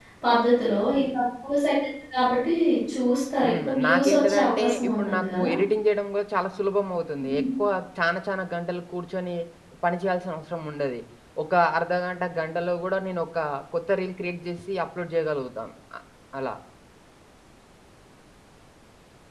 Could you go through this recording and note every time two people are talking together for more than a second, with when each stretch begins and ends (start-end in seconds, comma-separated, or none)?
3.4-5.5